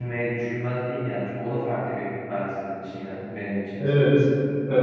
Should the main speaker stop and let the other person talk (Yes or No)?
Yes